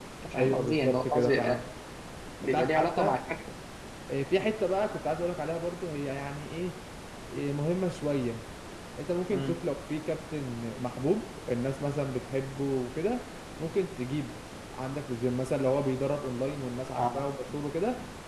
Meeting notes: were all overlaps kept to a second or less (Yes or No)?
No